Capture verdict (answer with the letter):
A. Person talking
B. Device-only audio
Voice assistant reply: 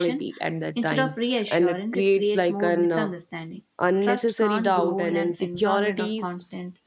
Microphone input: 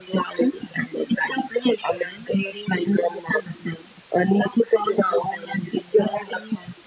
B